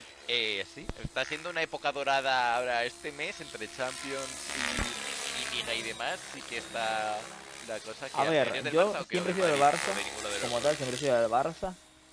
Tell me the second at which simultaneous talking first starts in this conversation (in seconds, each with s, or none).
8.1 s